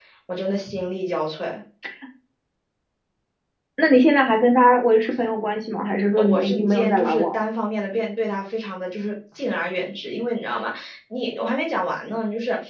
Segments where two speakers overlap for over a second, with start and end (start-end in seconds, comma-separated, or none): 6.2-7.4